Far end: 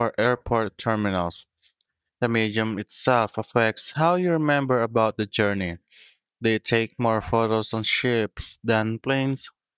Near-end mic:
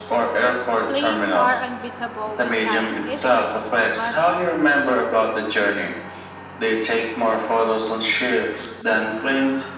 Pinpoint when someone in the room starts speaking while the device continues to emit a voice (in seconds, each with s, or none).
0.9 s